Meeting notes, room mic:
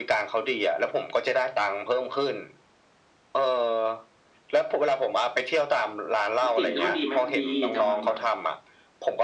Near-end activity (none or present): present